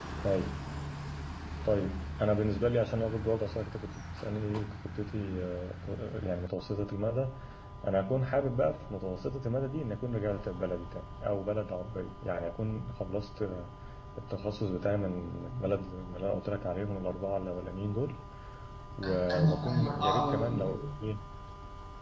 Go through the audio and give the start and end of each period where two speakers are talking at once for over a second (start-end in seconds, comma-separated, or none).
19.3-20.8